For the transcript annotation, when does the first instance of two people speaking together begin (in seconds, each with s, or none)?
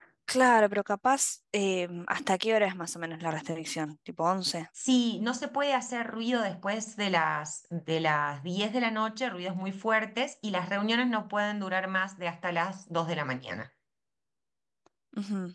none